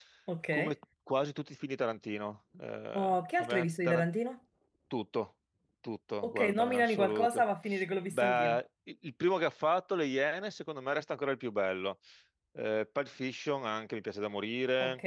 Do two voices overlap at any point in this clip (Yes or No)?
Yes